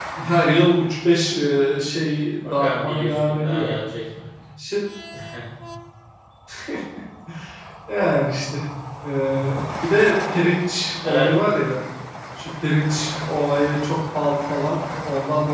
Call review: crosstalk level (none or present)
present